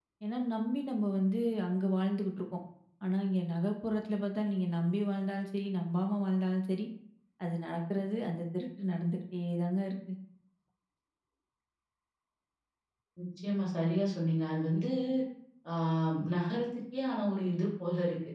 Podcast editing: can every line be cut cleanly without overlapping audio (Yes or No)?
Yes